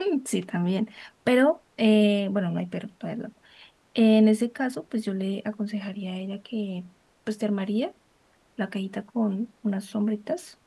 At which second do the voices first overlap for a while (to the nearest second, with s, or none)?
none